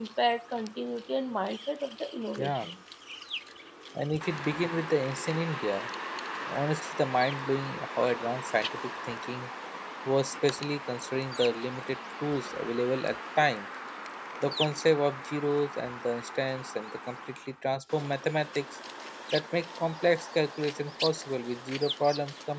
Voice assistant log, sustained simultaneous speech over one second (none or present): none